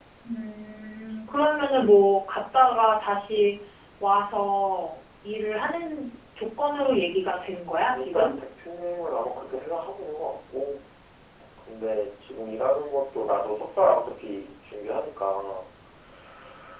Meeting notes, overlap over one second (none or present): none